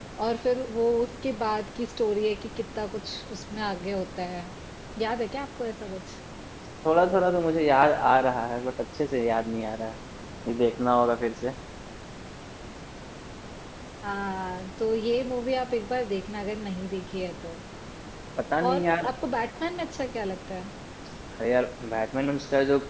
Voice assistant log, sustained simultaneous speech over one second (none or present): none